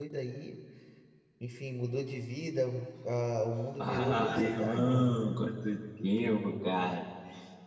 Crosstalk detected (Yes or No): Yes